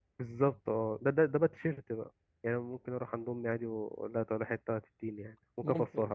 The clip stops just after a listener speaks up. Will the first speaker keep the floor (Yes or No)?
No